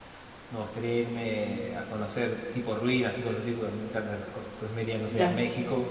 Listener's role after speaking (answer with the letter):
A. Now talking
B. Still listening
B